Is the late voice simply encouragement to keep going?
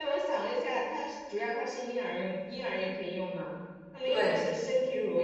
Yes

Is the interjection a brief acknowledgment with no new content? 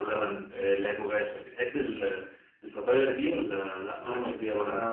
No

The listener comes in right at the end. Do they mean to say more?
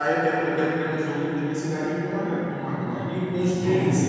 No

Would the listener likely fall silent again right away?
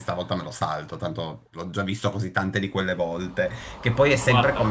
Yes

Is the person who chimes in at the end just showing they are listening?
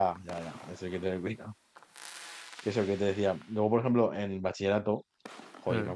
Yes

